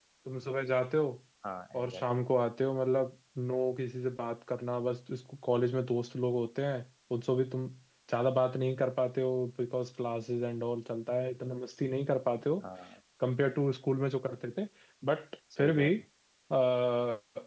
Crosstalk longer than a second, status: none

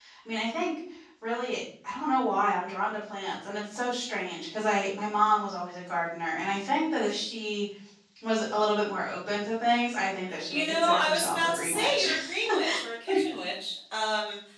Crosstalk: present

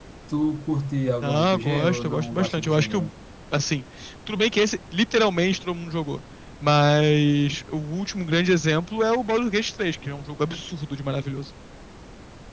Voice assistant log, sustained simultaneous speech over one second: present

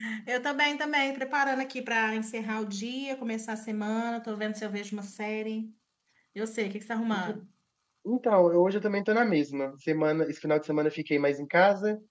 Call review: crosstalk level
none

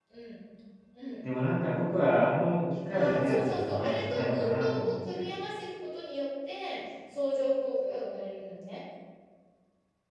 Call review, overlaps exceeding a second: present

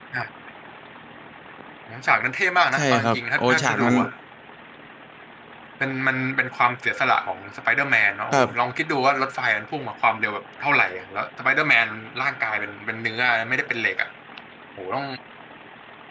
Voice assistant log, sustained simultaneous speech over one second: present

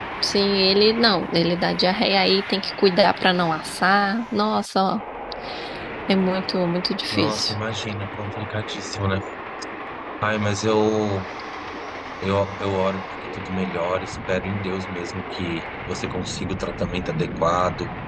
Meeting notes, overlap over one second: none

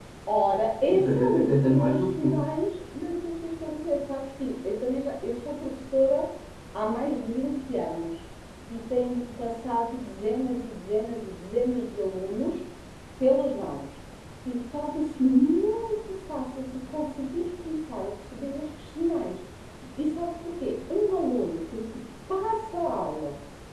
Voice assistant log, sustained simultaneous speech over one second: present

